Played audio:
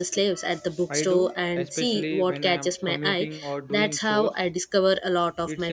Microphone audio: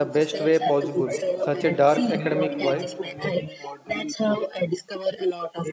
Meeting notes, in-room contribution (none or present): present